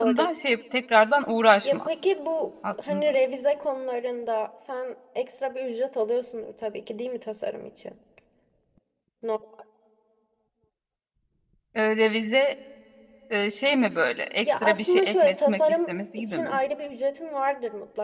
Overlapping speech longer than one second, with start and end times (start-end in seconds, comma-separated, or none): 14.4-16.6